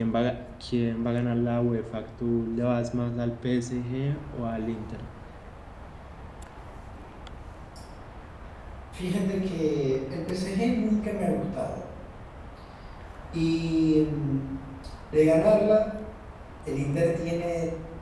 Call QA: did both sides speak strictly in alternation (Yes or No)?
Yes